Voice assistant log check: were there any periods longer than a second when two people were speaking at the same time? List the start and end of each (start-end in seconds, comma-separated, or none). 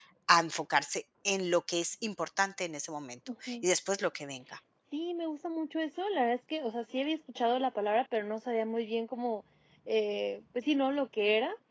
none